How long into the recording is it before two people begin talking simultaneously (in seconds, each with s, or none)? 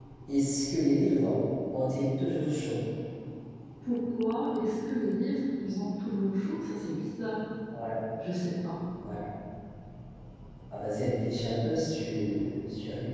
none